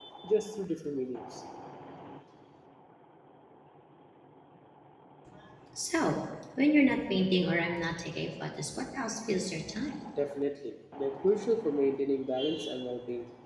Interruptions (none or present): none